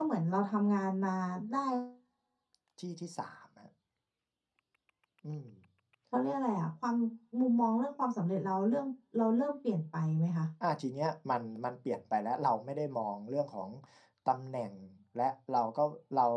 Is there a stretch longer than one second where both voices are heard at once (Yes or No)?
No